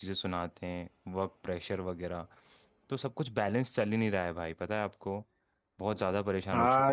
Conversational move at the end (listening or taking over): taking over